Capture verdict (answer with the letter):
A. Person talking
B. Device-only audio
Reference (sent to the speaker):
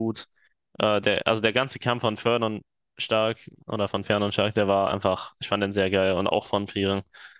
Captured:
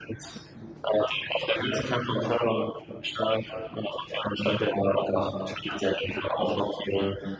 B